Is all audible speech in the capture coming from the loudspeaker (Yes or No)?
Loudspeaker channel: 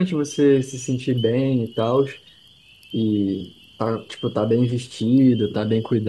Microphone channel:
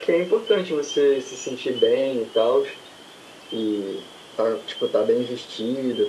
Yes